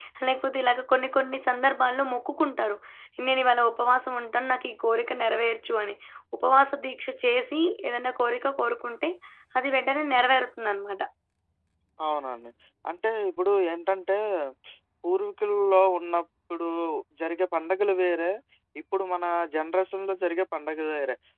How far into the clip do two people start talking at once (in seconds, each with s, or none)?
none